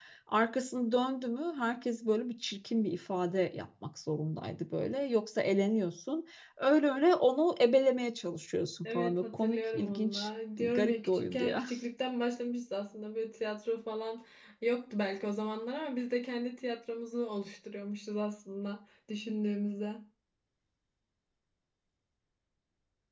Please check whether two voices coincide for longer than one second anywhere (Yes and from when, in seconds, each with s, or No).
Yes, from 8.8 s